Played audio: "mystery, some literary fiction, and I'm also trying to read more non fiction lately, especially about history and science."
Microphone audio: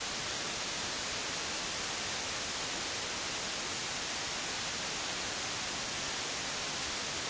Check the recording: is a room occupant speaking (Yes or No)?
No